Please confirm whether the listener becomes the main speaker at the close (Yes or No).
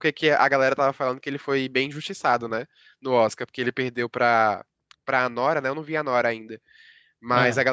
No